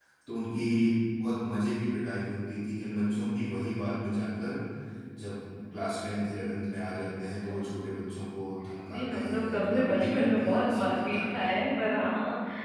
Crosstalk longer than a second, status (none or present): present